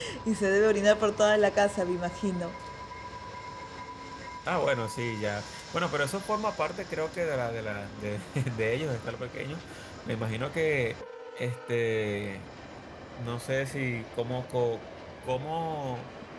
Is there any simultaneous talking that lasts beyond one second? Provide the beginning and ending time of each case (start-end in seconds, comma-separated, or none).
none